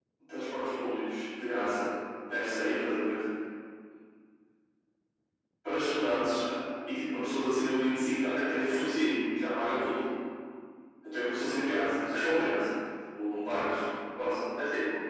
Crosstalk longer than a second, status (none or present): none